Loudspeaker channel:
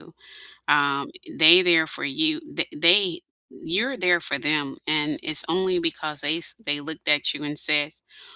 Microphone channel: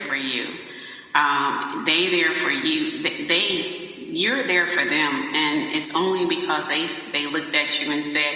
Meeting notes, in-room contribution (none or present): none